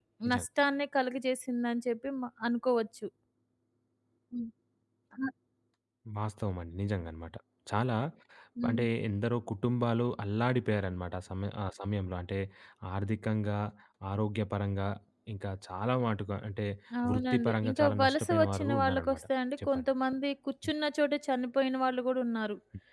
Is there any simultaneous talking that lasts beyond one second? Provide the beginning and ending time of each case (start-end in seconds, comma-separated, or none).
17.1-19.2